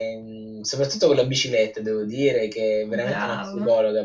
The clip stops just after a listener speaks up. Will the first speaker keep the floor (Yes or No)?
Yes